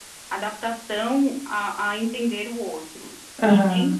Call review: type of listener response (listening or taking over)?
listening